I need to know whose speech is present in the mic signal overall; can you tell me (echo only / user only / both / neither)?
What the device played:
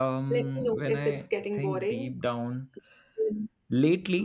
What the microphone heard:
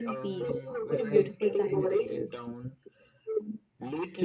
both